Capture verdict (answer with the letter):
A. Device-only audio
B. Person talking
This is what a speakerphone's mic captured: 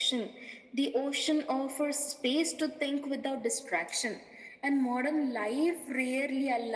A